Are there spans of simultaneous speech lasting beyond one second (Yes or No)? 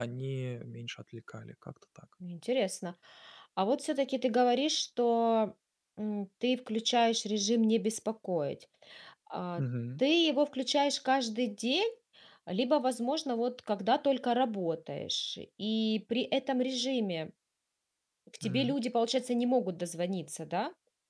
No